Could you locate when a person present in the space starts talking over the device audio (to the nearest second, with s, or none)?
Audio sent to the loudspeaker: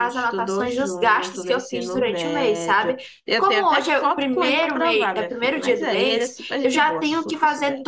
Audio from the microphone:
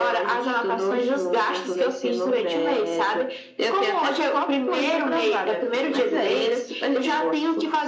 none